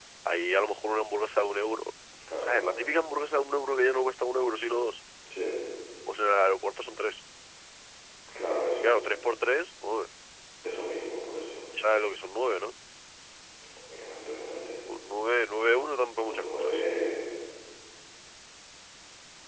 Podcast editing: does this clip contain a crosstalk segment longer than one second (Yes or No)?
No